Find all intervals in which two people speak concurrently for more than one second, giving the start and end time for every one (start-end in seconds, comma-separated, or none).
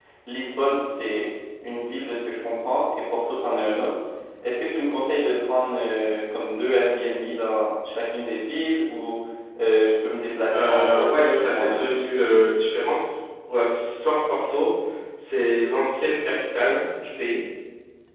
10.5-12.4